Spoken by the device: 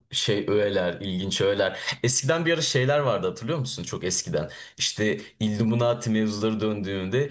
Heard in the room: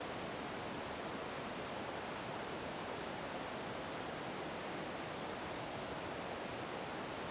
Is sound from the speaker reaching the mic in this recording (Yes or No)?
No